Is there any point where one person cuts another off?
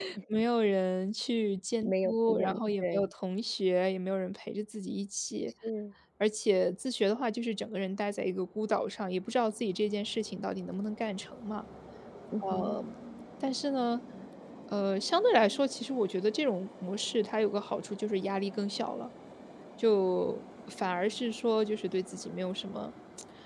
Yes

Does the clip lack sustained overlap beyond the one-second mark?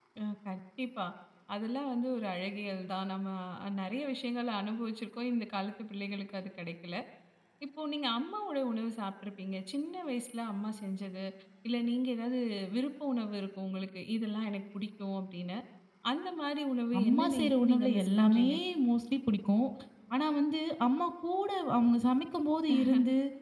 No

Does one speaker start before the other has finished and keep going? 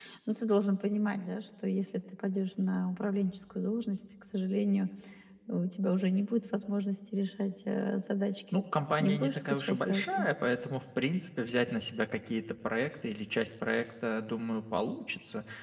Yes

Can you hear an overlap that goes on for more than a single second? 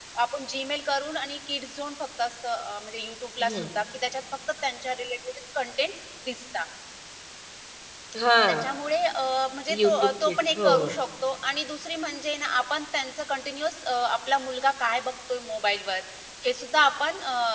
Yes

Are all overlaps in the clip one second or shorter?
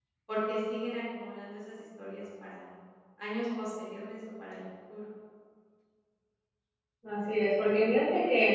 Yes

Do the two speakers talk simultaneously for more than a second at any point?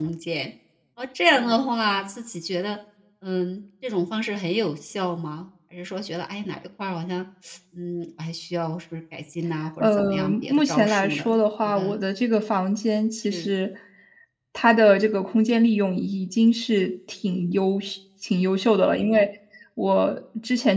Yes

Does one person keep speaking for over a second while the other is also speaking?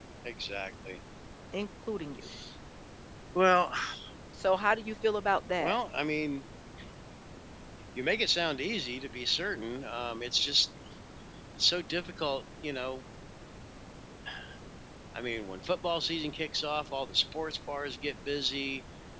No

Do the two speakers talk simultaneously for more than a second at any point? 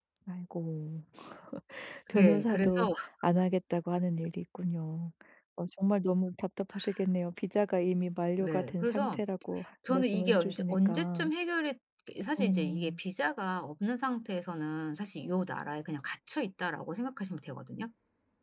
Yes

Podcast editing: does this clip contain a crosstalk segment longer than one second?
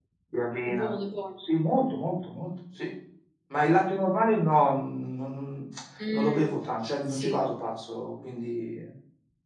No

